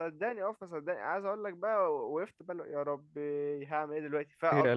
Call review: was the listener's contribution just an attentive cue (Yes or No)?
Yes